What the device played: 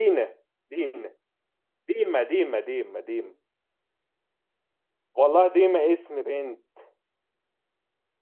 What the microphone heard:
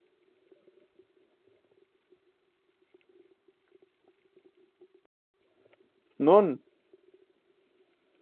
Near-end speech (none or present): present